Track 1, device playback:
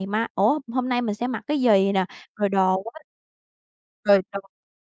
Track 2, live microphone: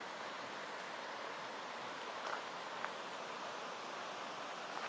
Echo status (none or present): none